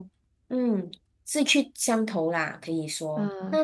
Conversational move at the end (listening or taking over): taking over